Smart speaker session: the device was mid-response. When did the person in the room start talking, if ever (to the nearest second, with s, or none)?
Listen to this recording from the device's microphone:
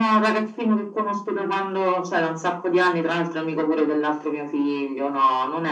none